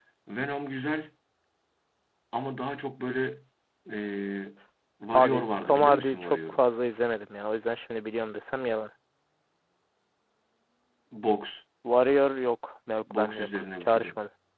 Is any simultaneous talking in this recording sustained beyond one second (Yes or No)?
Yes